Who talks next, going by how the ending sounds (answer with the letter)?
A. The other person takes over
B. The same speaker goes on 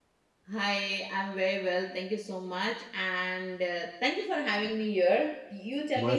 A